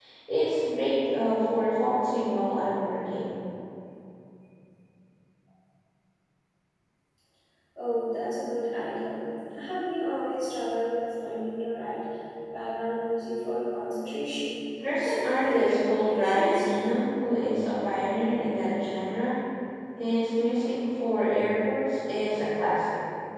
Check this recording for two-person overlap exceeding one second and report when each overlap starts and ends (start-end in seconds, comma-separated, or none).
15.0-16.6